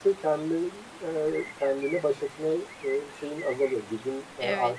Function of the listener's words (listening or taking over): taking over